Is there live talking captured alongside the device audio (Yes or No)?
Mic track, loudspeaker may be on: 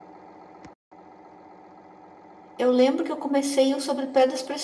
Yes